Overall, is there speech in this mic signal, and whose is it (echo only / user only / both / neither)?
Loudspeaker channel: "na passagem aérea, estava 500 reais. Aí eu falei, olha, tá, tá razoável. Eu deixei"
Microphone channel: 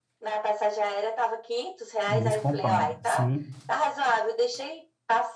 both